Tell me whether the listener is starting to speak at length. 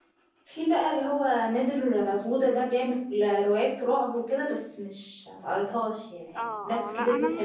Yes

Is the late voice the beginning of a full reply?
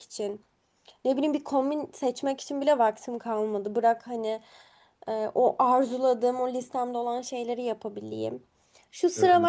No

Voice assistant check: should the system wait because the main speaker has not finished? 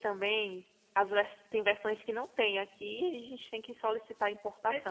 No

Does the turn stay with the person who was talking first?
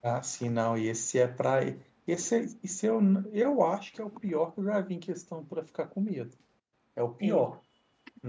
Yes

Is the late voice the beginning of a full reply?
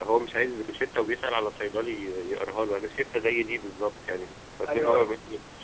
No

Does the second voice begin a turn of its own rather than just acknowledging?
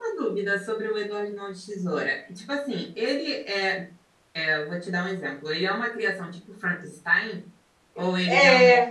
Yes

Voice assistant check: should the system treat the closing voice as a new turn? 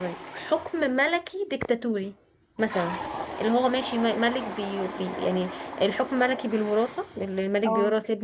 No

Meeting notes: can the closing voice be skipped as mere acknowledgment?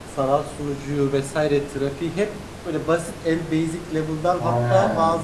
Yes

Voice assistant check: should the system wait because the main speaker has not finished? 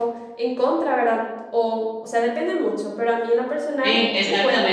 No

